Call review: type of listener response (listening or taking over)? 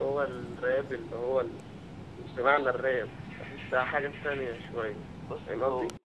taking over